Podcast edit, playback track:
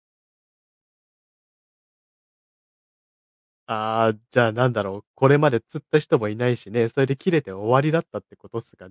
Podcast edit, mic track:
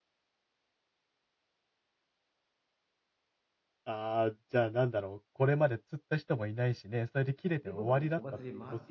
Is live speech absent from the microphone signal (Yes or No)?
No